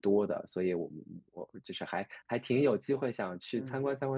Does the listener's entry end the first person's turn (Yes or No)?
No